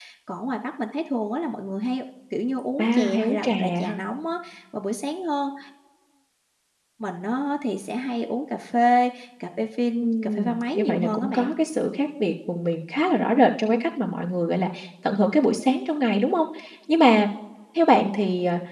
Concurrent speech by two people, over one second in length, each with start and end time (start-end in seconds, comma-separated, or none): 2.8-4.0, 10.0-11.5